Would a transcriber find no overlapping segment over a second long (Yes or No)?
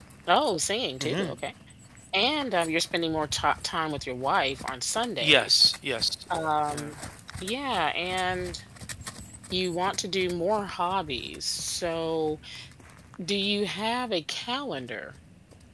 Yes